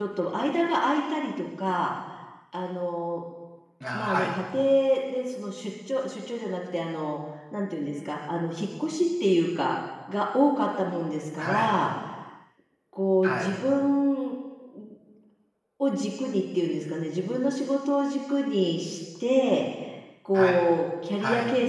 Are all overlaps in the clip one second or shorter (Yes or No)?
Yes